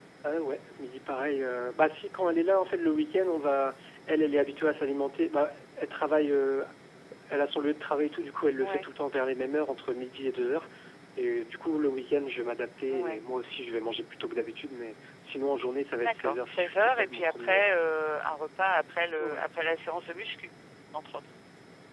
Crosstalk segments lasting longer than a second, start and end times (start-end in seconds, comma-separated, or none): 16.0-17.7